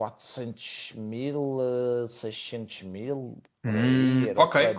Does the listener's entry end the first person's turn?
Yes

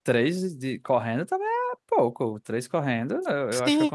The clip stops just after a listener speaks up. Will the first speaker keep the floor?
No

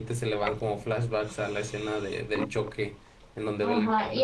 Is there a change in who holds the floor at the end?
Yes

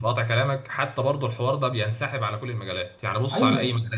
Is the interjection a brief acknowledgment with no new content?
Yes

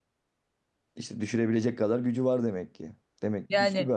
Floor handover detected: Yes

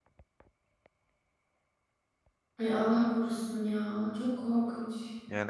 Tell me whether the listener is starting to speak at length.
Yes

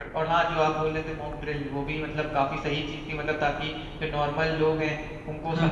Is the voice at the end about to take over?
No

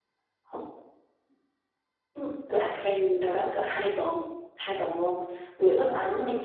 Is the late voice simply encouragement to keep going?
Yes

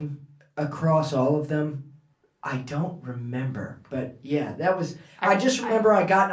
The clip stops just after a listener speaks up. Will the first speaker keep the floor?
Yes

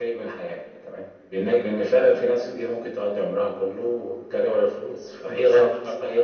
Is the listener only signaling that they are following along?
Yes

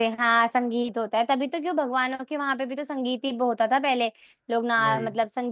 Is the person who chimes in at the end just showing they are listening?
Yes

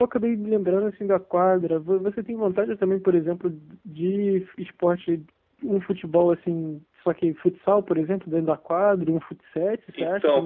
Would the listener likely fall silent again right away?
No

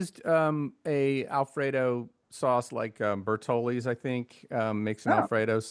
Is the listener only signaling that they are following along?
Yes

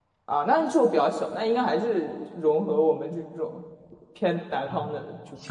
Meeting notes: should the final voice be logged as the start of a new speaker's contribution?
Yes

